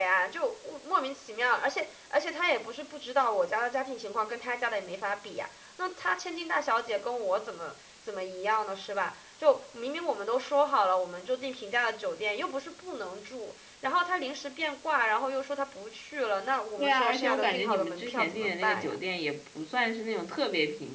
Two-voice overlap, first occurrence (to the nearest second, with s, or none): 17 s